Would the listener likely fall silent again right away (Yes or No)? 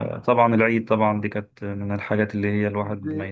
No